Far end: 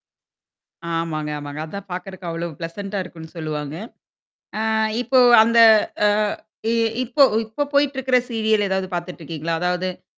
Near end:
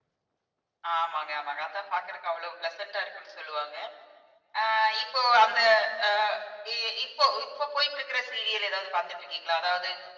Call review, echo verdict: present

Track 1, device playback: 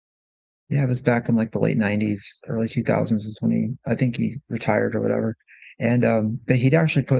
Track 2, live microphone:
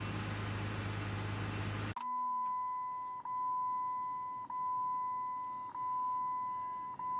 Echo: none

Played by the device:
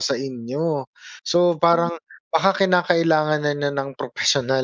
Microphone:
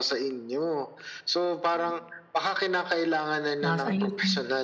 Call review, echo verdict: present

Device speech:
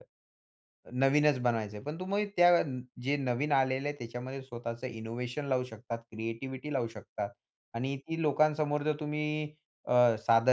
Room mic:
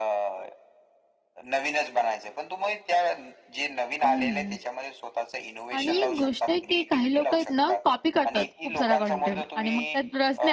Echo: present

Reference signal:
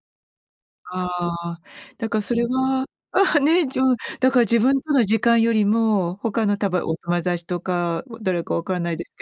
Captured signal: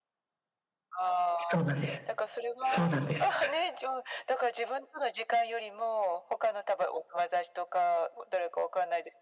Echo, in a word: present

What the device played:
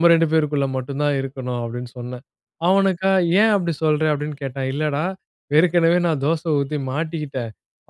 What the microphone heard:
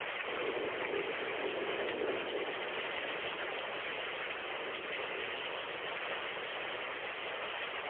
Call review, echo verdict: none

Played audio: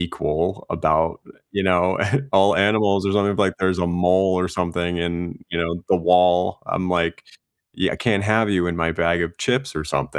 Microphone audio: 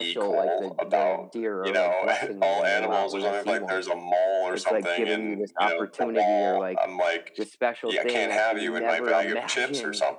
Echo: present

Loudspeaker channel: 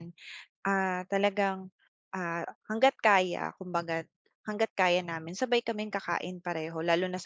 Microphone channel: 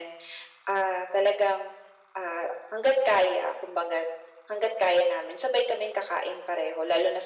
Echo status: present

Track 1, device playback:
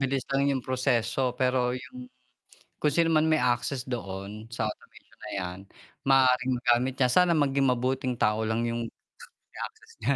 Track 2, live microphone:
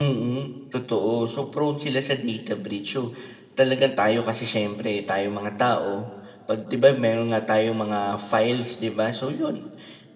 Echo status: none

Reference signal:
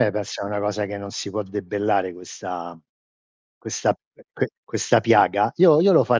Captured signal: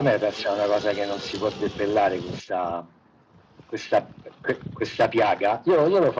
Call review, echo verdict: present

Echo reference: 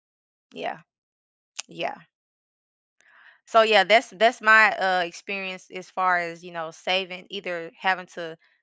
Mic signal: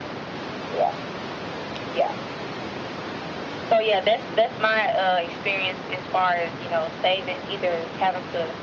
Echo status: present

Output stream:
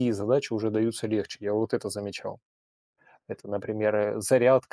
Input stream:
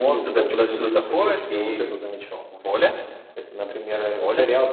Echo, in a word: present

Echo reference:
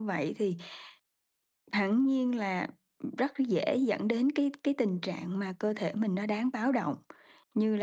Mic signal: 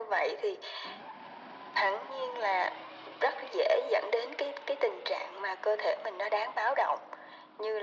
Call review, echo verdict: present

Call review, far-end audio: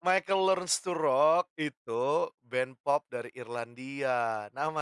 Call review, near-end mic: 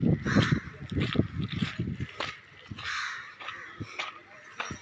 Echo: none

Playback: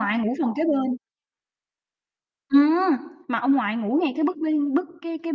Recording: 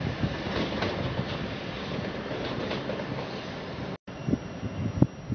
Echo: none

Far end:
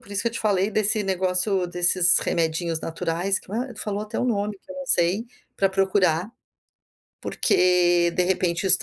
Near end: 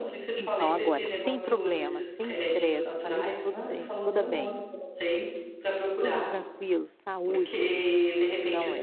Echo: present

